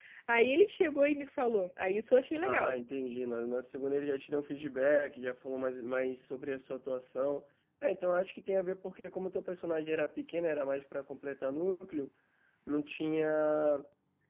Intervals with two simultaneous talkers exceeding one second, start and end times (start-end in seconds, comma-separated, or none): none